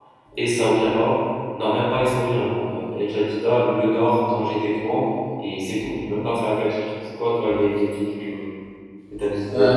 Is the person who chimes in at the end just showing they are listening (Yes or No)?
No